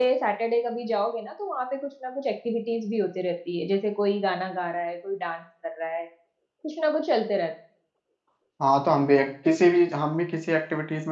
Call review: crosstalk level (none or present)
none